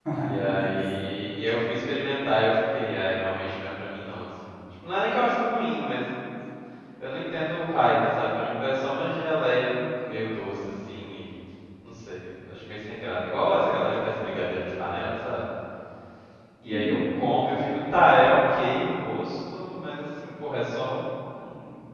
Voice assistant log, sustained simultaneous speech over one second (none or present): present